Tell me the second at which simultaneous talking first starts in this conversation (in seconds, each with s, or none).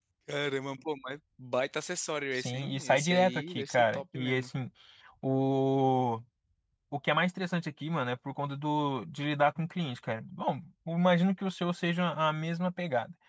2.4 s